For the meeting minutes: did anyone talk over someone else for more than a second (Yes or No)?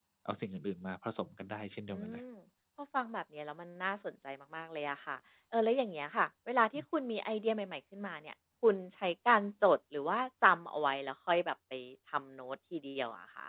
No